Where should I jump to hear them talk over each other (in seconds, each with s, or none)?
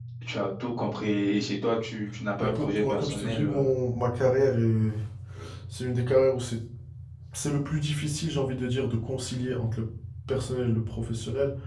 2.4 s